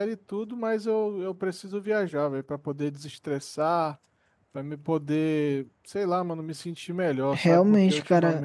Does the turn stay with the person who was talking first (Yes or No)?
No